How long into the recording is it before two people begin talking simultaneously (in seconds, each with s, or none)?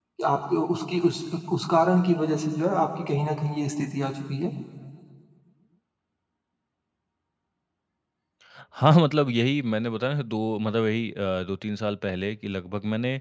none